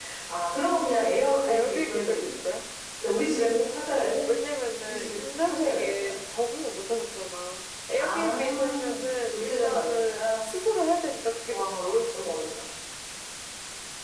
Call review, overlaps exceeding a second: present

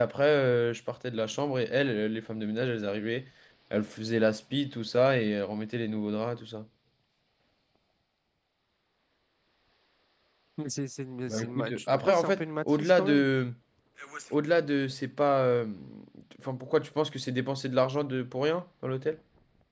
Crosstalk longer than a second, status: present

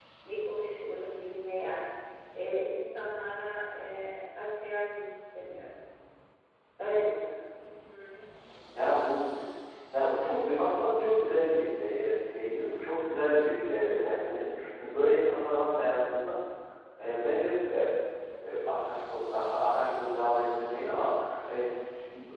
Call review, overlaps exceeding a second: none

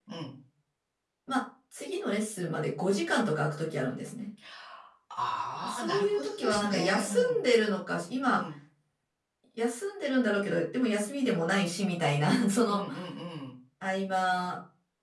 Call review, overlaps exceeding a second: present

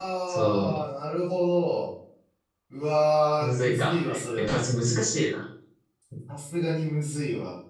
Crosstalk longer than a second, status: present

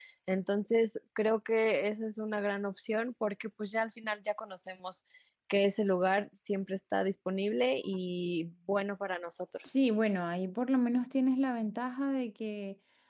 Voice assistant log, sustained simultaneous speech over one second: none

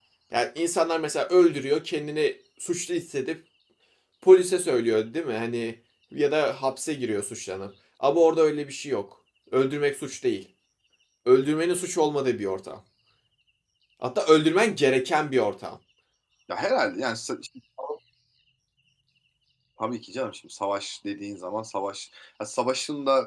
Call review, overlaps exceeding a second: none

